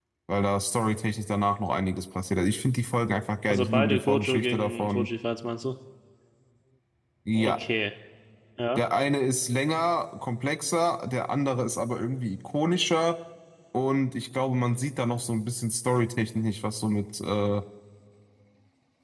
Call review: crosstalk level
present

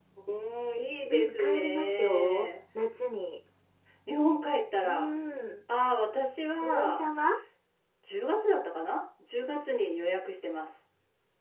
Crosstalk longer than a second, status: present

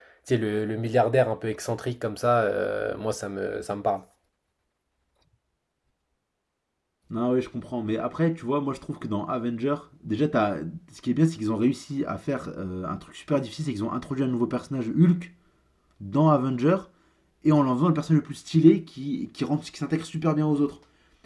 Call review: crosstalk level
none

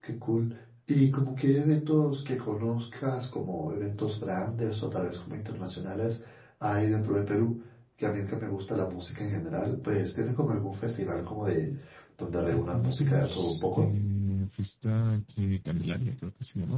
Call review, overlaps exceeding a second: present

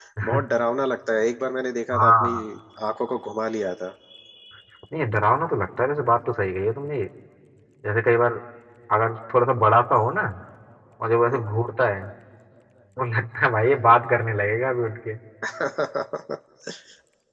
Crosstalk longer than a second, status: none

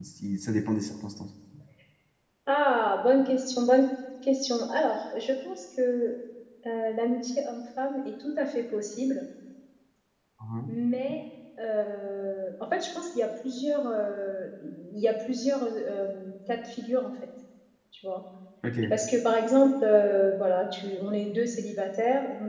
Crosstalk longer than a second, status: none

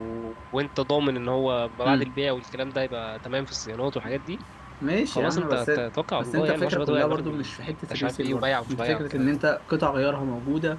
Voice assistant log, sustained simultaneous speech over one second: present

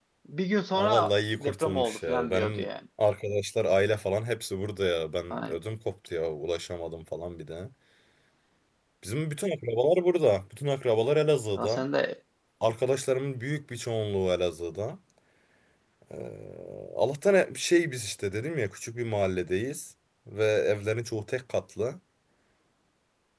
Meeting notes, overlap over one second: present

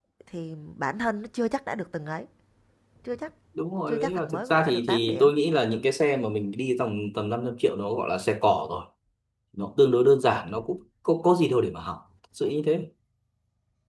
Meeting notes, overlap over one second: present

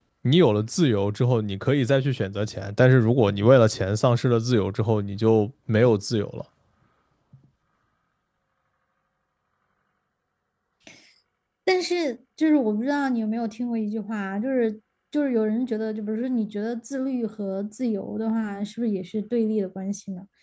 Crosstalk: none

